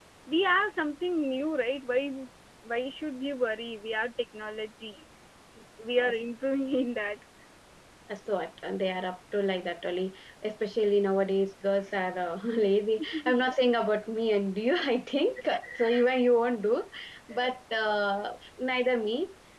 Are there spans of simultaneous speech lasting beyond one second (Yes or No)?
No